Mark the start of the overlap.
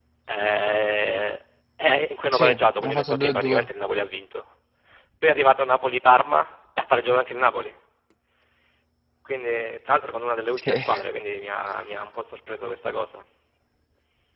2 s

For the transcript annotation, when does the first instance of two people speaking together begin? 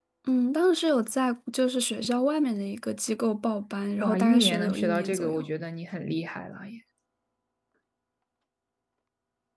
4 s

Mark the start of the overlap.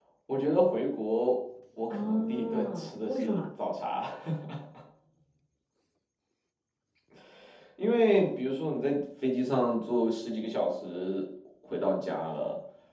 2 s

